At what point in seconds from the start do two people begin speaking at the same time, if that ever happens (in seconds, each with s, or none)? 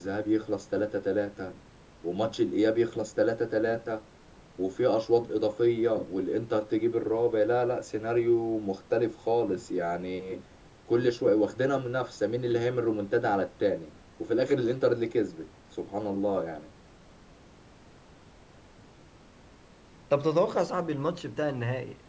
none